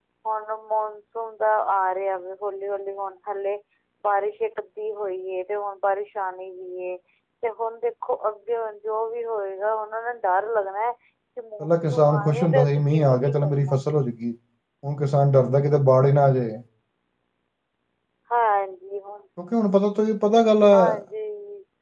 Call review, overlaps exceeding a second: present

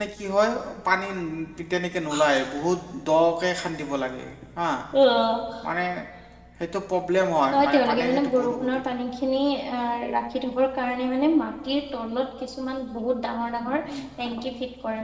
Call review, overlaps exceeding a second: present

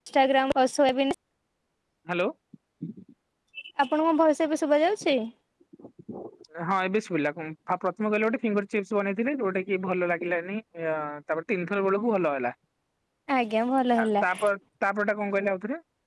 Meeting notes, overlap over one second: none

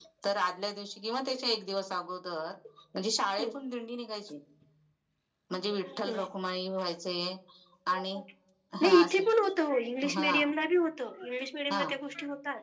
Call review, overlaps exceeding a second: none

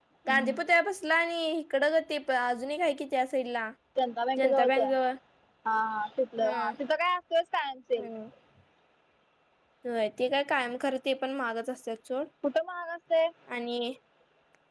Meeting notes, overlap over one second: none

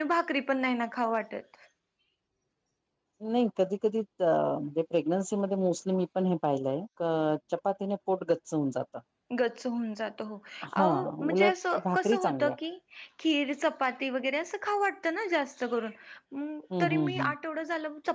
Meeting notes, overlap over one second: present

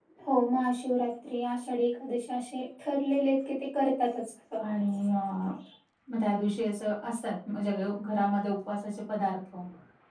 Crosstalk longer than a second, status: none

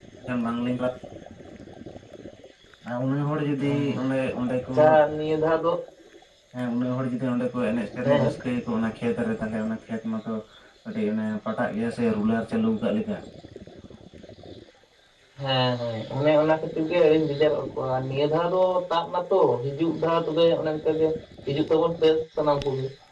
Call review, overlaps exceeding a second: none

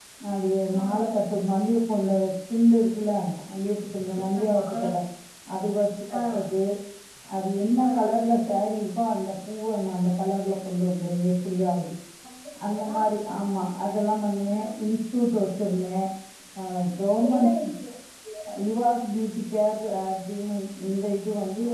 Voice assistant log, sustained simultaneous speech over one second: none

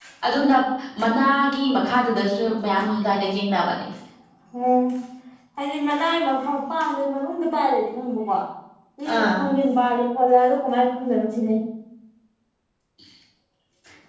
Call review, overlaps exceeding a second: none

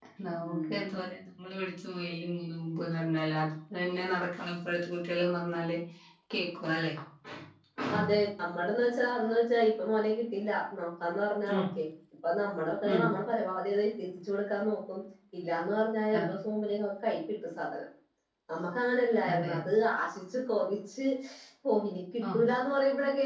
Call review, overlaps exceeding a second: none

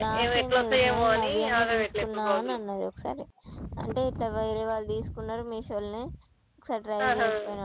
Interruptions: present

